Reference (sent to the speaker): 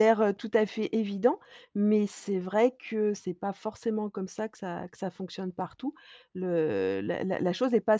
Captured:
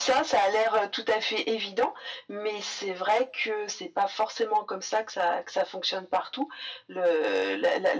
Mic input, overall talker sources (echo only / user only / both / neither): echo only